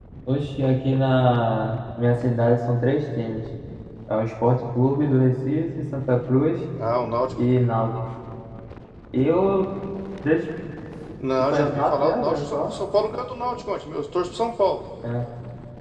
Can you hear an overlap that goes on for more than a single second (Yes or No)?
Yes